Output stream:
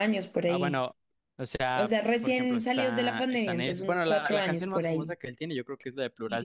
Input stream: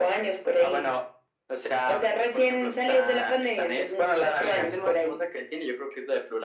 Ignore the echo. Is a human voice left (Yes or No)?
Yes